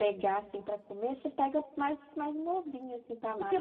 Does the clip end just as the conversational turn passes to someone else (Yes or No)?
Yes